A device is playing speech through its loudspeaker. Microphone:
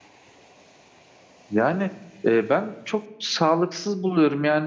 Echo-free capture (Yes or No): Yes